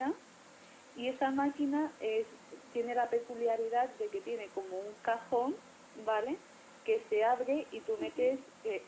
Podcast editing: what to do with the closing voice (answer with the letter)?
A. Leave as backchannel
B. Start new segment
A